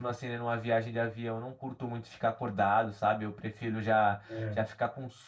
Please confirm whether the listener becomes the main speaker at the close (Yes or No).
No